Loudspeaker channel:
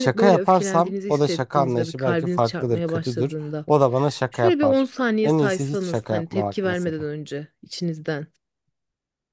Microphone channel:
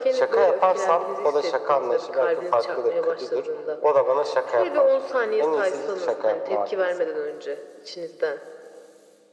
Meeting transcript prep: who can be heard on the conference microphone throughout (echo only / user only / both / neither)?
echo only